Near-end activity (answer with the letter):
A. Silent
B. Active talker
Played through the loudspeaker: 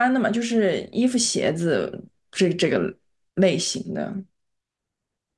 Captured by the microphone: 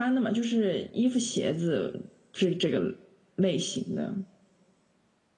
A